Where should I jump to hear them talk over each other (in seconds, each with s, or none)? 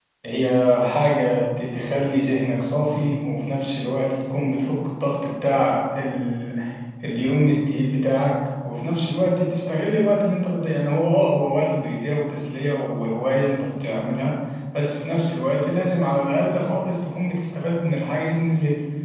none